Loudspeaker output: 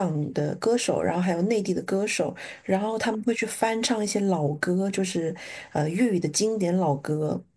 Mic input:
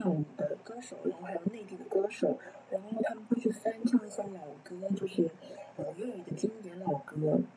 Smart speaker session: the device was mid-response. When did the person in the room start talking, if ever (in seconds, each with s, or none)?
none